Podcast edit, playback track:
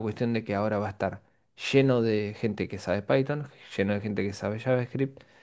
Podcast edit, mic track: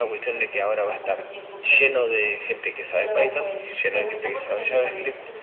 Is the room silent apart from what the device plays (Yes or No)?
No